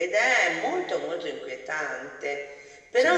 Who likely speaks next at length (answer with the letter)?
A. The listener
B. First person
B